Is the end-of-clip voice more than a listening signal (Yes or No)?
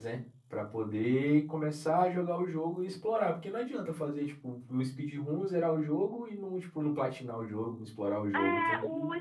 Yes